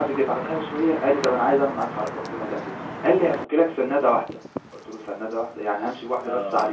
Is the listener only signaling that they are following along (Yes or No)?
No